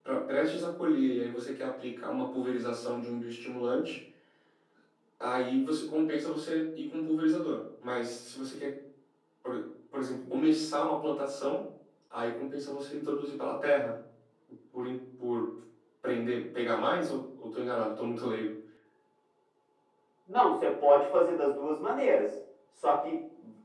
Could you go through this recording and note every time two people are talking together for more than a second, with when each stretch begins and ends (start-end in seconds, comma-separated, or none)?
none